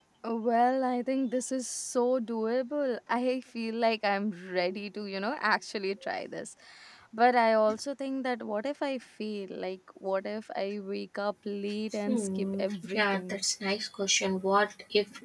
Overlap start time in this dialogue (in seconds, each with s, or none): 12.1 s